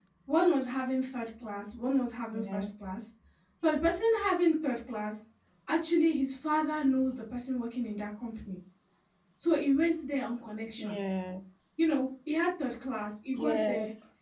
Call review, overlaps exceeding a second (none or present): none